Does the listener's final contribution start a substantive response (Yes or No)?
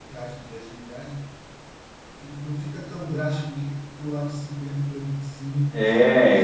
Yes